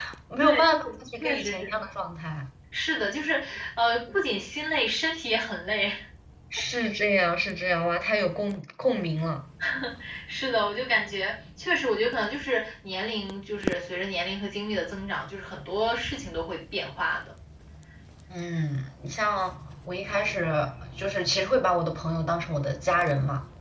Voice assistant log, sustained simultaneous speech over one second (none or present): present